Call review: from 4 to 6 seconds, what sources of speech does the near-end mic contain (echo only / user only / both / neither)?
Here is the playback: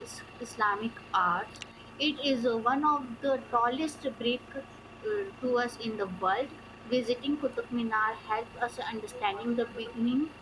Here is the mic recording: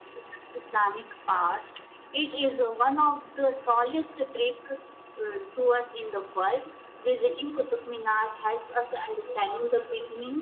echo only